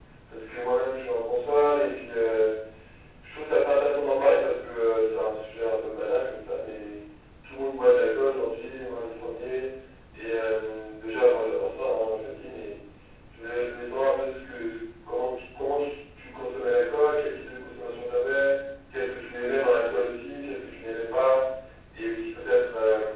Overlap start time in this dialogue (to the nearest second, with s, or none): none